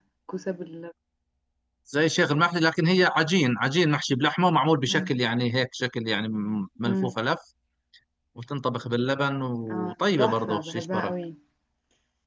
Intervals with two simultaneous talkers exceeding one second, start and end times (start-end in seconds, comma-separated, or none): 9.7-11.1